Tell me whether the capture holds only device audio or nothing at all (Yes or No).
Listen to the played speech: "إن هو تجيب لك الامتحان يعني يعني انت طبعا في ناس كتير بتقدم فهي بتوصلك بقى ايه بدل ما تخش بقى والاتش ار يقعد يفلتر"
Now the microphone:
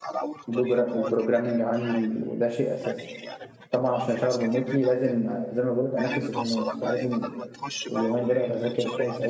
No